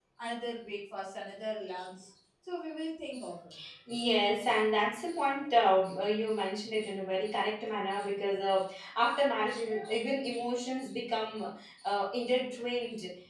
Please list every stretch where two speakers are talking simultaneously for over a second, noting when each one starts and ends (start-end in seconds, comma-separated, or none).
none